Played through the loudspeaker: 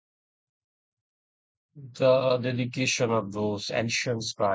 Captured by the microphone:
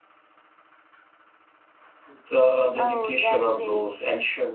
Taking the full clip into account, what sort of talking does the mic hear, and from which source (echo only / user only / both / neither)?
both